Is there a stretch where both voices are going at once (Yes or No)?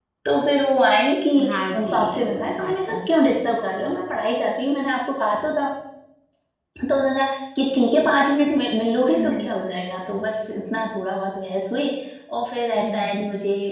Yes